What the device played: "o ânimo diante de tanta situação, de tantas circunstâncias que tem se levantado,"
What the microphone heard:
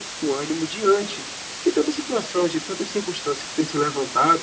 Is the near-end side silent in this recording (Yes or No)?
Yes